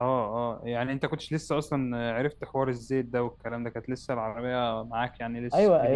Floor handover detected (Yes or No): Yes